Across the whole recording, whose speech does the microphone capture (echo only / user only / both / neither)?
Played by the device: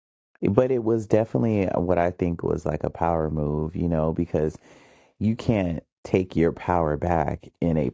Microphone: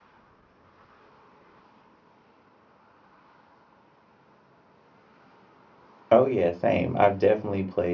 user only